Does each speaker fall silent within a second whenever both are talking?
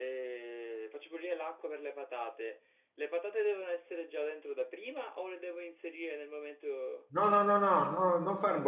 Yes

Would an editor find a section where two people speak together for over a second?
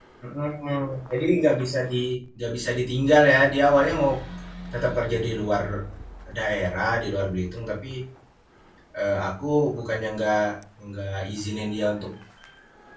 No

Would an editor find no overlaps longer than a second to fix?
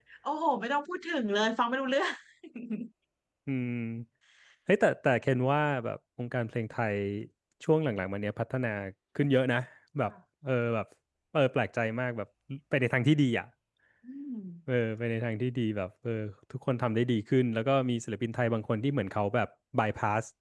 Yes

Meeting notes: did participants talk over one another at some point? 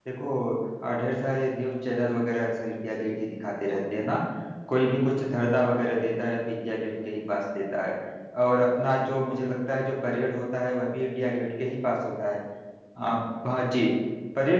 No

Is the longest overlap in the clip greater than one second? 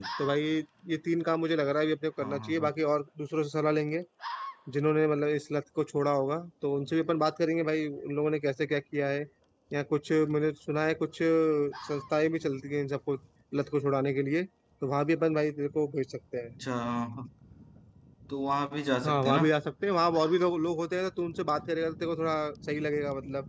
No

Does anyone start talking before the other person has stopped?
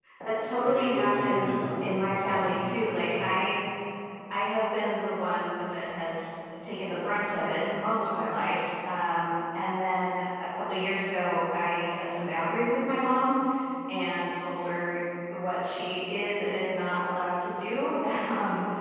Yes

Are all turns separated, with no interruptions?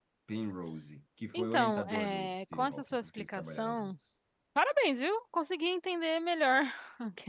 No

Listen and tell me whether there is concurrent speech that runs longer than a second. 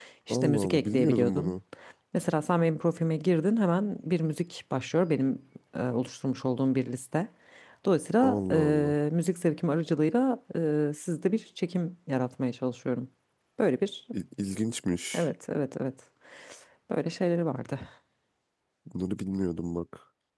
Yes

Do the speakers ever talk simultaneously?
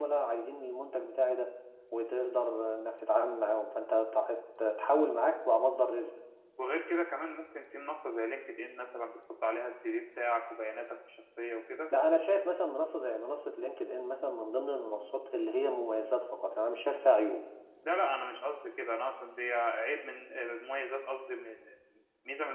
No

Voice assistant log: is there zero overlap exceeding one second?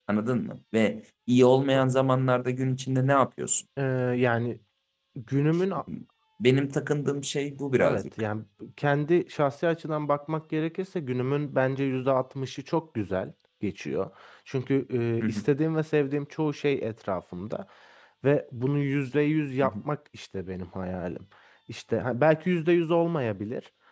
Yes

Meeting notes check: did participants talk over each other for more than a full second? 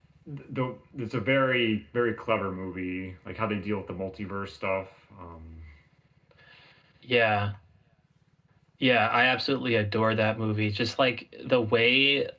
No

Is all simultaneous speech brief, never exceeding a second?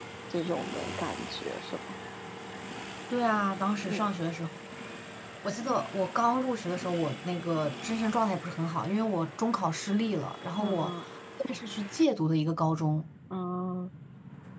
Yes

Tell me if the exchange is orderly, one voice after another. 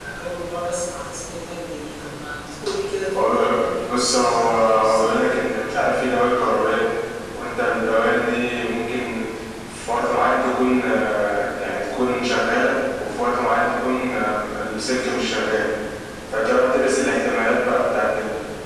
No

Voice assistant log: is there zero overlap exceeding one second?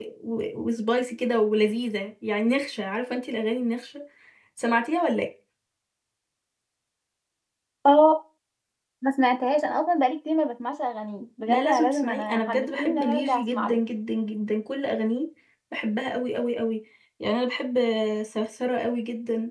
No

